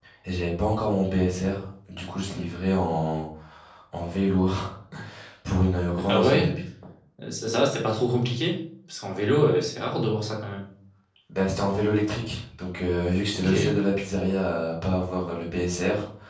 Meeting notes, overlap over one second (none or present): none